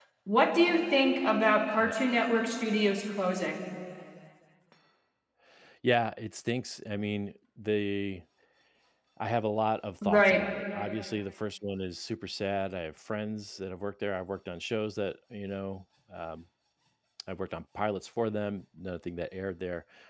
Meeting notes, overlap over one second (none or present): none